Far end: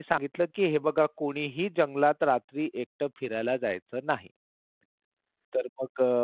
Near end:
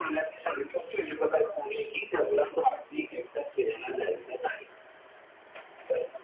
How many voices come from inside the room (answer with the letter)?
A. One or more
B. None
B